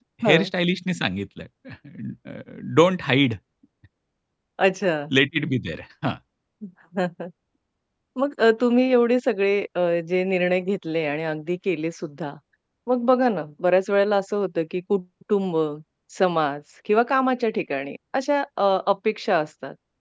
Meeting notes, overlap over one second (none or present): none